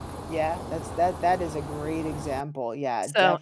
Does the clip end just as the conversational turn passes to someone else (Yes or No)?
Yes